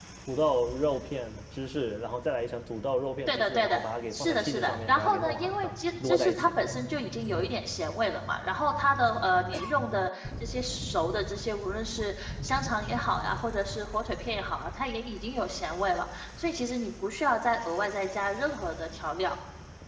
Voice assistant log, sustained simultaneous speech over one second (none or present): present